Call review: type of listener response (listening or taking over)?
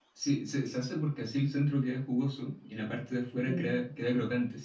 listening